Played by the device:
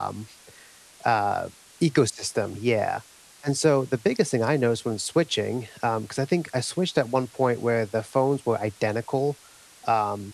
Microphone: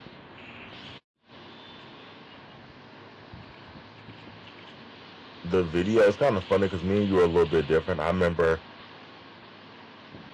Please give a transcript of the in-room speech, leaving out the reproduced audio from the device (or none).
the video, it's kind of funny because me and you are a little bit different. I remember